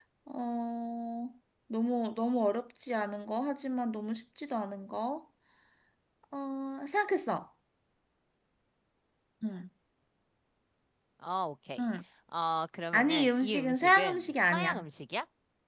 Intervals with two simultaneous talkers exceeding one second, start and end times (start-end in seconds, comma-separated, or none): 12.9-14.8